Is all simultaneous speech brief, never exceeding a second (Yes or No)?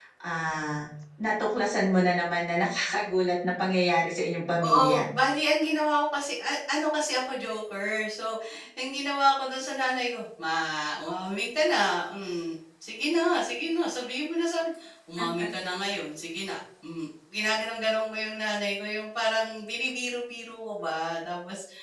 Yes